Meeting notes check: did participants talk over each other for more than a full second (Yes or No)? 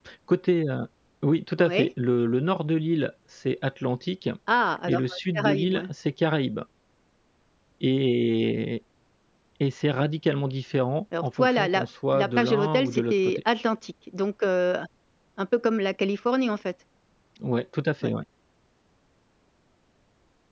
Yes